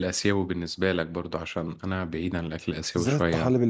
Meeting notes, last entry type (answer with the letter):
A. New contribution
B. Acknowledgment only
A